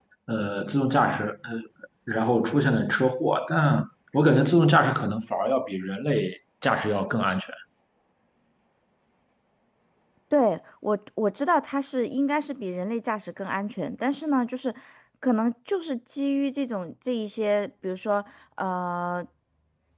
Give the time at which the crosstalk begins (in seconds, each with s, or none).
none